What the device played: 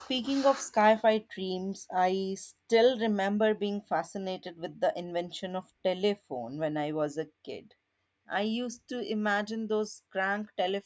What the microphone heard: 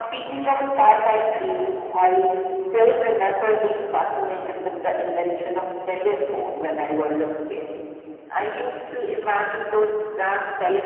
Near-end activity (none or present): none